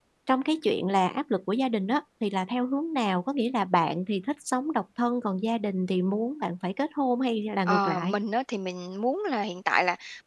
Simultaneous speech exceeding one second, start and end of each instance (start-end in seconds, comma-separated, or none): none